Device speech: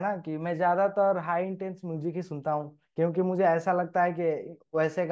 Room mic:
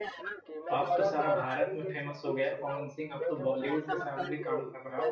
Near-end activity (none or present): present